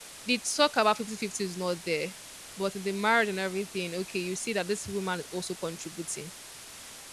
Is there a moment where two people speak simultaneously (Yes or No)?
No